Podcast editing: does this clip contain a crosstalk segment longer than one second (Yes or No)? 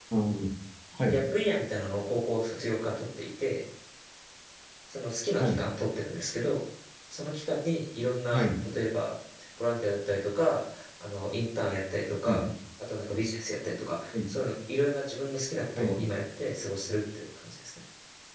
No